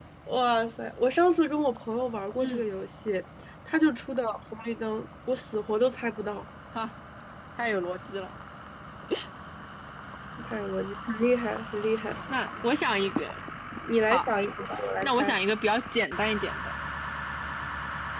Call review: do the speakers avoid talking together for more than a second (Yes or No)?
Yes